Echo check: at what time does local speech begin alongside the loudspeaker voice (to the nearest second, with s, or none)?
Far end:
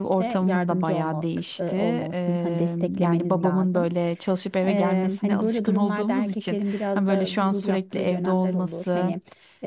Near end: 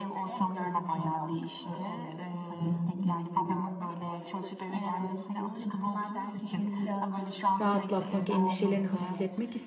8 s